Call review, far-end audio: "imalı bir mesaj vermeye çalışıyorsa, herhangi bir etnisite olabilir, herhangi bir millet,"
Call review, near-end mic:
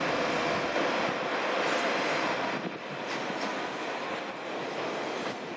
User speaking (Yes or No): No